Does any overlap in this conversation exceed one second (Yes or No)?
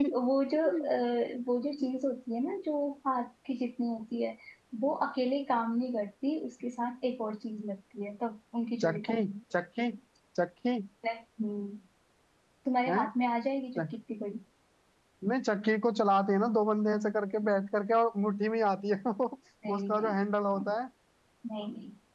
No